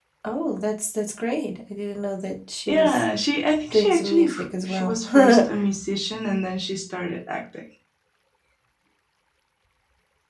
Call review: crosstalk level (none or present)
present